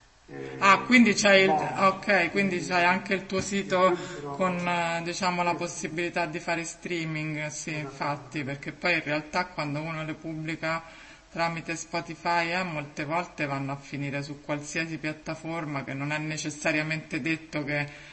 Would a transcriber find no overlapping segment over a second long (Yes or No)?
No